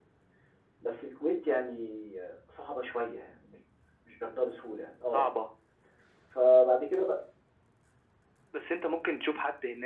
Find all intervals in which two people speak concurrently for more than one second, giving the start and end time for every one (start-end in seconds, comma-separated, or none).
none